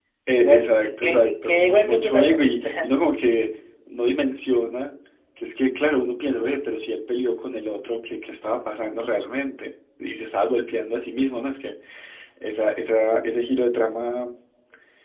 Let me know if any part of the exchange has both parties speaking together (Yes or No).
Yes